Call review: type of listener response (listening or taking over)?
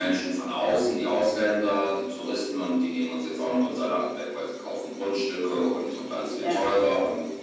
listening